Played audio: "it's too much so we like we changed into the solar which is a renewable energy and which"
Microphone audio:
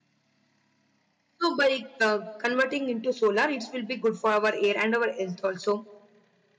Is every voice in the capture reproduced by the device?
No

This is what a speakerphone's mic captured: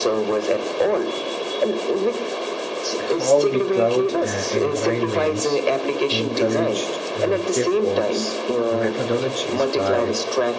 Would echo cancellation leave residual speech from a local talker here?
Yes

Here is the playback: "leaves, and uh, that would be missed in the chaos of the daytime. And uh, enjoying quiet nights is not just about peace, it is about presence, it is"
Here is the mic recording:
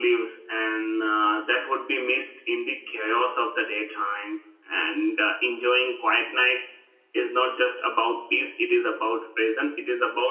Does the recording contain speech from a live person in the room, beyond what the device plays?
No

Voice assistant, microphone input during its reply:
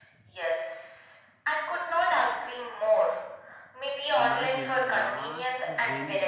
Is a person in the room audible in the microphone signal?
Yes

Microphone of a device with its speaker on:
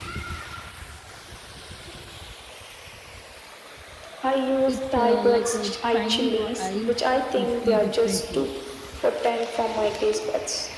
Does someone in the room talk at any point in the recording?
Yes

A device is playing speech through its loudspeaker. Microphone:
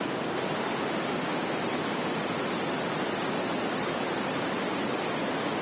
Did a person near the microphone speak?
No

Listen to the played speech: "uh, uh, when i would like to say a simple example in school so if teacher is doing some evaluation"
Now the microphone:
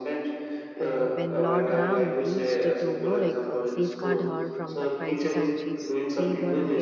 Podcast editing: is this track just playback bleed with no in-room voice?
No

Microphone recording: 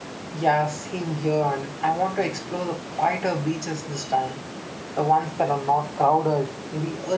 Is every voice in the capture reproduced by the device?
No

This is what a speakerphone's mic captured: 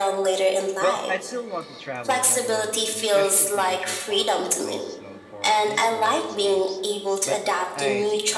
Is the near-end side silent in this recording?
No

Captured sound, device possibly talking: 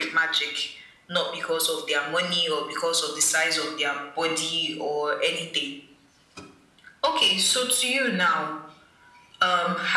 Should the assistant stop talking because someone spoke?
No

